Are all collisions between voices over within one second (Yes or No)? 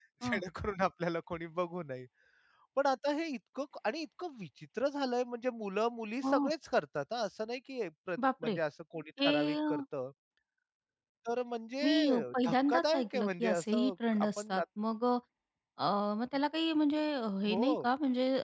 No